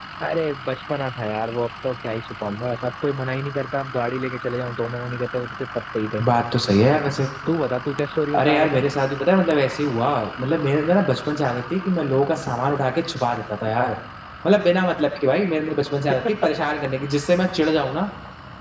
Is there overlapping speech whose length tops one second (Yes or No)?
No